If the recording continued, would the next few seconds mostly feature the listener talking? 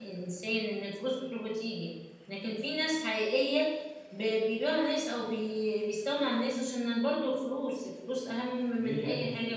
Yes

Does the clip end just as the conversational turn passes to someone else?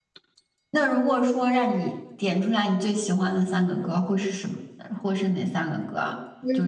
Yes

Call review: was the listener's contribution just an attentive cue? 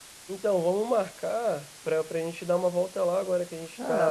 No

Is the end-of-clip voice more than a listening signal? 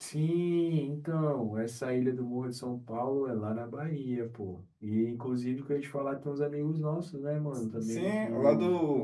Yes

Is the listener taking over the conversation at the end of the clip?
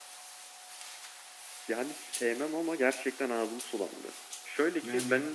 No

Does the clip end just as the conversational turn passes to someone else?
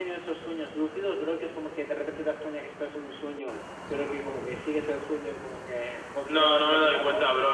Yes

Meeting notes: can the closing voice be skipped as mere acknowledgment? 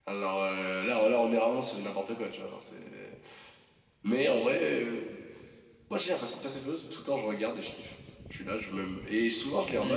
No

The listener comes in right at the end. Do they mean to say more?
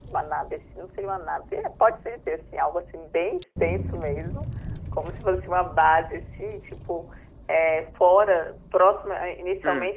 No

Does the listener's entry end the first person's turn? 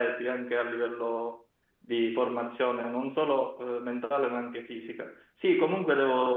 No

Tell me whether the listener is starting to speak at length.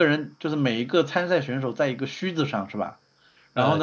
Yes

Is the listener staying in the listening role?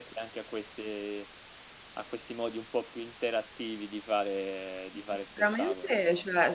No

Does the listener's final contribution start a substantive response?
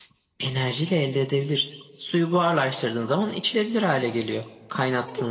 Yes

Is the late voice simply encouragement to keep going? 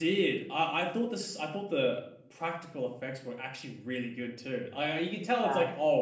Yes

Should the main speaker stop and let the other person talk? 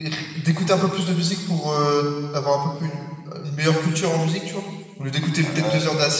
No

